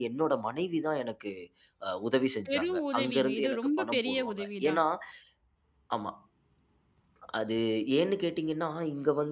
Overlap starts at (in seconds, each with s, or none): 2.5 s